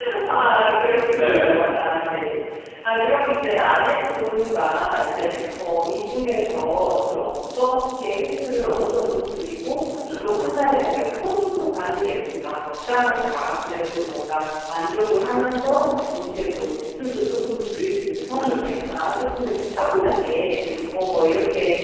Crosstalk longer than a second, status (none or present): none